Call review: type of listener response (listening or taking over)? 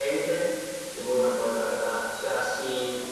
listening